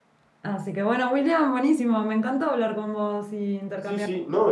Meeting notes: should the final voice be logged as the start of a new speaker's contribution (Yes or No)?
Yes